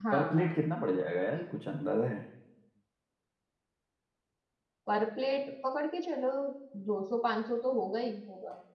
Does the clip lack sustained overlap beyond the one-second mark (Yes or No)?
Yes